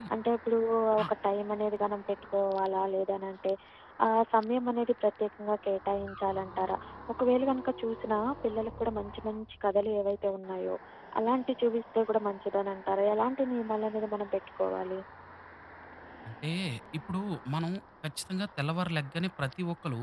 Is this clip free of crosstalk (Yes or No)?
Yes